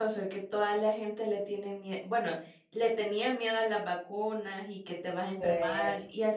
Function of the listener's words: listening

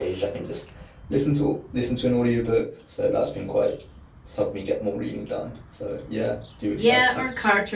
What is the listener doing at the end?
taking over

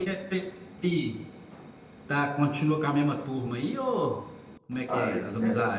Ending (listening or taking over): taking over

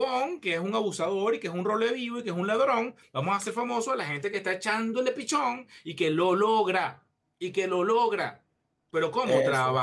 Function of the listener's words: listening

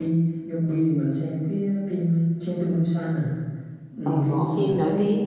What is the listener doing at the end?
taking over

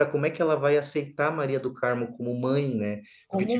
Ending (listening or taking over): listening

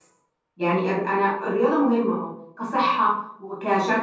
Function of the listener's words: listening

